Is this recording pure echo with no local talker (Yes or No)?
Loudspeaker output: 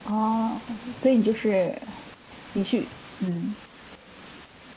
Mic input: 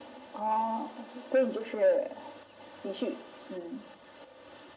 Yes